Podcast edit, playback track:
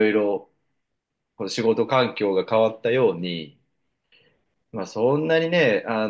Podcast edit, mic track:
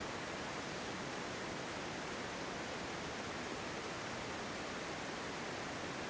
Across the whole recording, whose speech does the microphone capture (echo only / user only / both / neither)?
neither